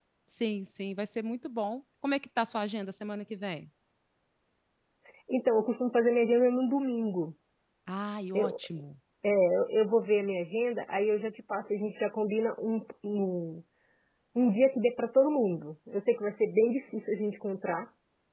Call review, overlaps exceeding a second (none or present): none